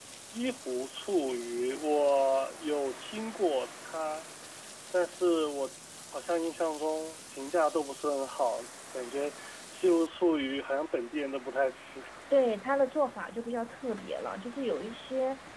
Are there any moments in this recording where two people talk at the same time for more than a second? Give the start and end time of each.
none

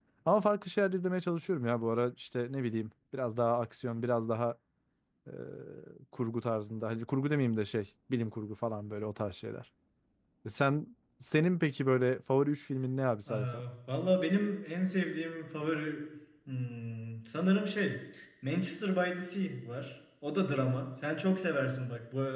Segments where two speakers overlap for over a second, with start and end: none

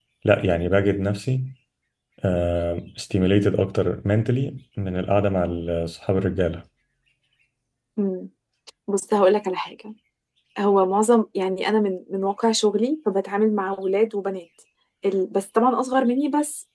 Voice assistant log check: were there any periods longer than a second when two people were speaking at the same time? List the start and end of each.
none

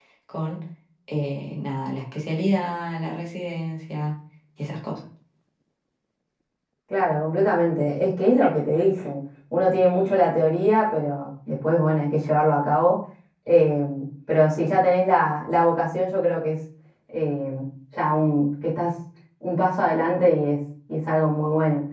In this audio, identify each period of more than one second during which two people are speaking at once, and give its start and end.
none

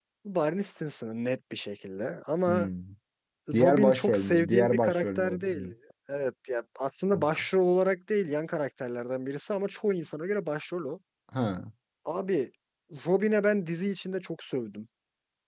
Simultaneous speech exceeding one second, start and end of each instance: 3.5-5.7

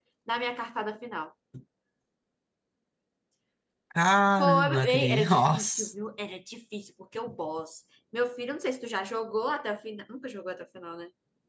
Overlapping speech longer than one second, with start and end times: 4.4-5.9

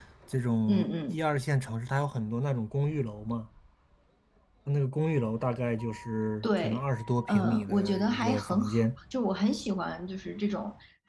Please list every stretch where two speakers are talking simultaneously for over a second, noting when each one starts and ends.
7.3-8.7

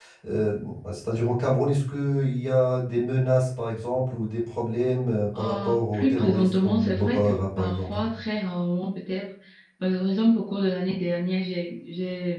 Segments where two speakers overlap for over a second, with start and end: 5.3-8.0

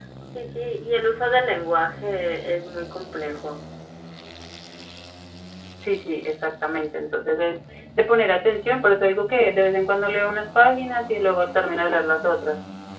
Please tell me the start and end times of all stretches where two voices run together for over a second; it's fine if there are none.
none

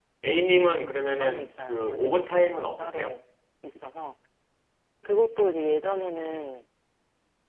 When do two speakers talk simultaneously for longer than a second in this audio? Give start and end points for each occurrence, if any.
1.2-3.1

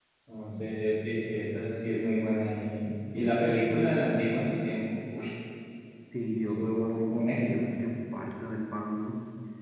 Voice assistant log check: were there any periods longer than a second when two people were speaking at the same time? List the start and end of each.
6.3-7.7

